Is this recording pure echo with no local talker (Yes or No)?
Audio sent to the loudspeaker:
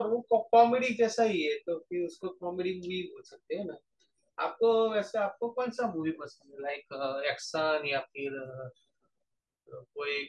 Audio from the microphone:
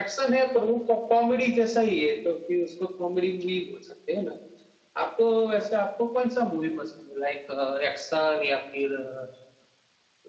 Yes